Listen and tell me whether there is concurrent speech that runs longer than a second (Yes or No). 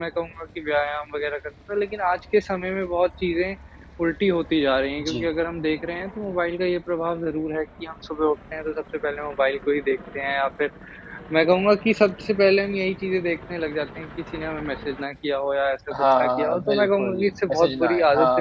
Yes